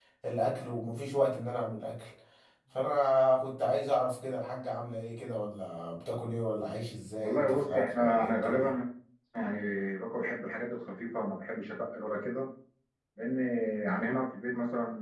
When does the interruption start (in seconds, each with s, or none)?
7.2 s